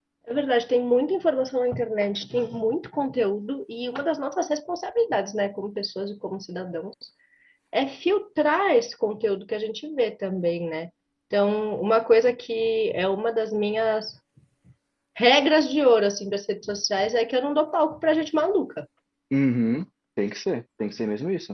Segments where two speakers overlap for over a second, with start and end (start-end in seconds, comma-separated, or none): none